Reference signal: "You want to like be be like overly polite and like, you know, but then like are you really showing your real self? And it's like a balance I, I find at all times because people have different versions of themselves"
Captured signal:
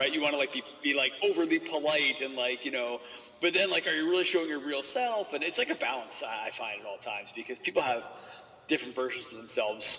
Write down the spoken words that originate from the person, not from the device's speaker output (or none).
none